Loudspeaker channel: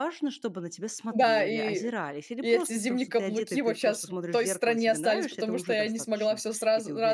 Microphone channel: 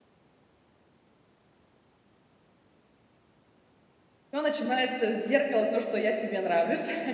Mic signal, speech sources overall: user only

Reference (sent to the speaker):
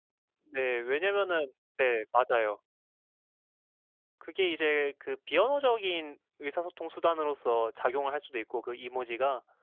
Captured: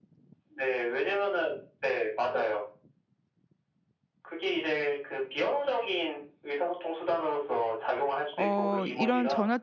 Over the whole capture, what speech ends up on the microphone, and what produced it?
both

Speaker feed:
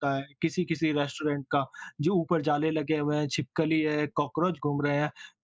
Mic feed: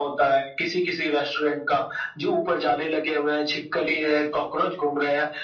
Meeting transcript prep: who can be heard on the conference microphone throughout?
echo only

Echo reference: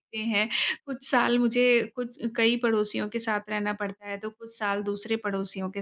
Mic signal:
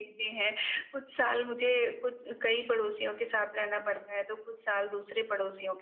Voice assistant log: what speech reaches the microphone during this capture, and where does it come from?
echo only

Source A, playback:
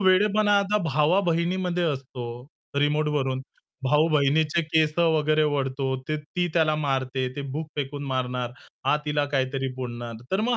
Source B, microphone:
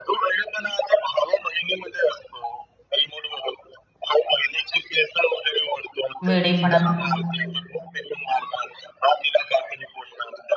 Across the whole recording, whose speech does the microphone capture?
both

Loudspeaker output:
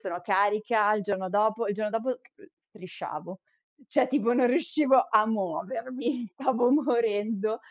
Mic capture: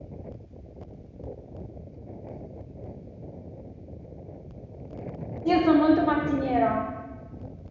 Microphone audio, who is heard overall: user only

